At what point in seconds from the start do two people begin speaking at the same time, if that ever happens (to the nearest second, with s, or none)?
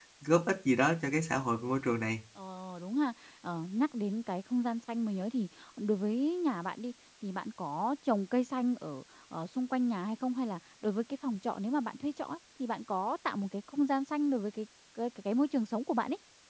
none